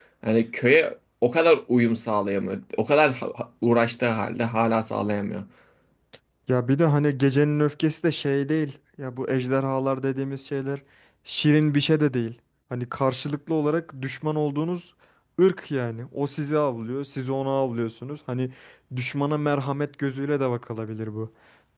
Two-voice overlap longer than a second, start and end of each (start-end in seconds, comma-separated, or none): none